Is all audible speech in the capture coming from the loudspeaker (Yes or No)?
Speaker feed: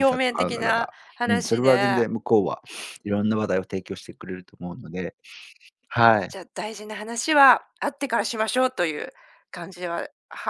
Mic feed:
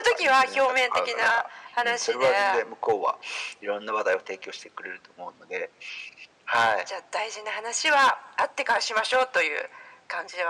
Yes